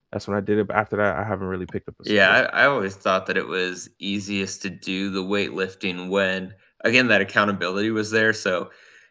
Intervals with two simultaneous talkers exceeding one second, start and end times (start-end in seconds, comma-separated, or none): none